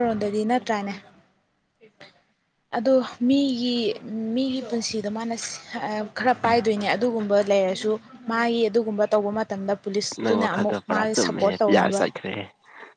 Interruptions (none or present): present